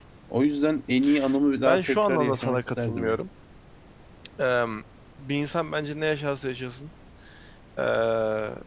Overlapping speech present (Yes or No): Yes